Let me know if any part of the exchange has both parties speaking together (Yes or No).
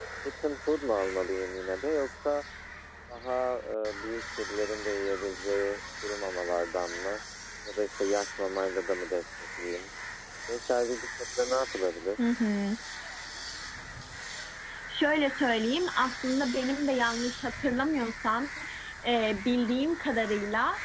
No